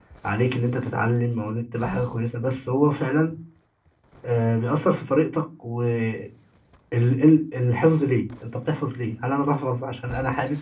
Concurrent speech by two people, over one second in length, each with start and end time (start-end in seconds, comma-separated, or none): none